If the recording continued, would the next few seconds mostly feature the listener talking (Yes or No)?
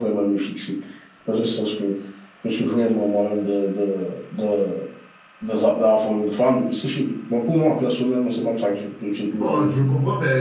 Yes